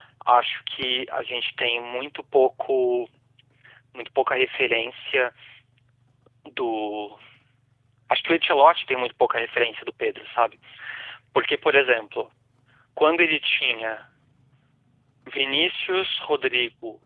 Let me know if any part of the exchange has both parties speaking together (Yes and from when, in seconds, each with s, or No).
No